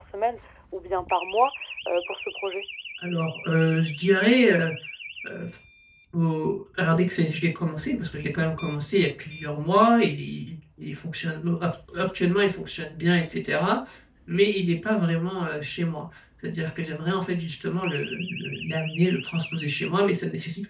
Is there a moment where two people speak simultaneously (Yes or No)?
No